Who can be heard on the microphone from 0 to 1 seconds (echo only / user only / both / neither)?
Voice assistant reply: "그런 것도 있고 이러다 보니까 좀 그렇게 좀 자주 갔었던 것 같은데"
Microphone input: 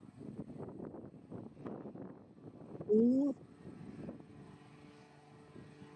neither